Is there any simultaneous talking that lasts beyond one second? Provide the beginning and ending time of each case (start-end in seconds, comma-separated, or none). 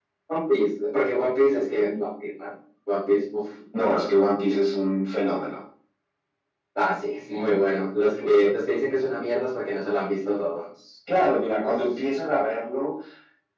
none